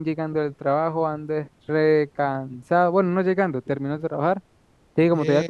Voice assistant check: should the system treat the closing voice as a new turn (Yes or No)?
No